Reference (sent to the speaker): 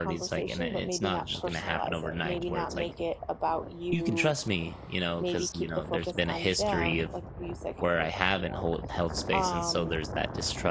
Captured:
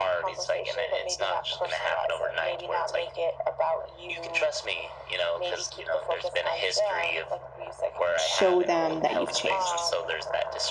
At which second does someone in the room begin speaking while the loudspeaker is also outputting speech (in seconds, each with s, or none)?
8.2 s